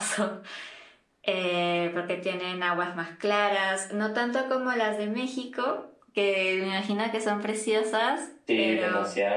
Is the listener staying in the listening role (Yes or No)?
No